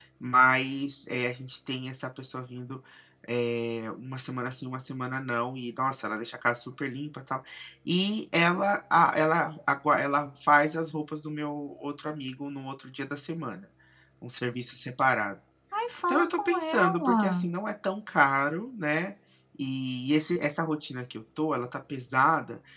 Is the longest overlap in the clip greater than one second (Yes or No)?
Yes